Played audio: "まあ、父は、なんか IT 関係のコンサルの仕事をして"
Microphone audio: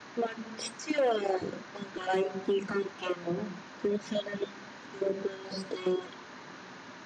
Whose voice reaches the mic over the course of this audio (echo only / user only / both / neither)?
echo only